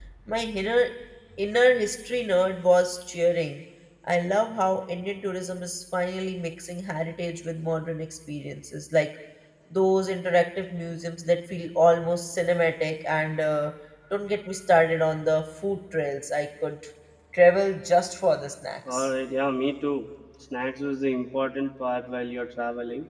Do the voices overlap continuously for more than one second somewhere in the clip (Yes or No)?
No